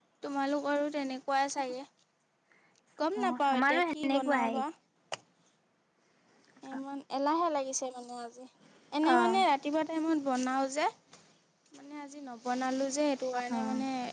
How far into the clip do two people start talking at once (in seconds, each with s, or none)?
3.2 s